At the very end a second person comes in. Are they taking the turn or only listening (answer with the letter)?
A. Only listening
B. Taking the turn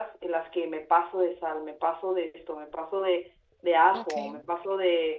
A